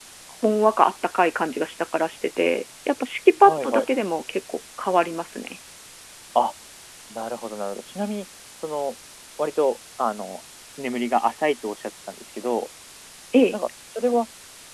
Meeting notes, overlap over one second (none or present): none